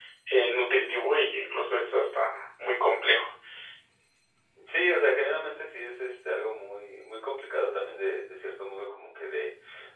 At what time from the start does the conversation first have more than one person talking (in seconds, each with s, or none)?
none